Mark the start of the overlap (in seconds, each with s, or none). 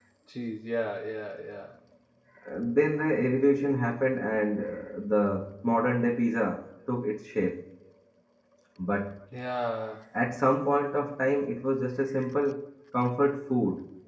none